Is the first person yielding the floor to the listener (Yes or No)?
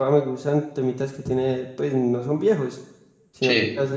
No